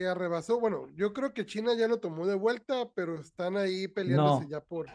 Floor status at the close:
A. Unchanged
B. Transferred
B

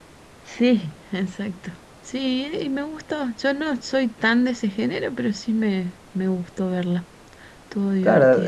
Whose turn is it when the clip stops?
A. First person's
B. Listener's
B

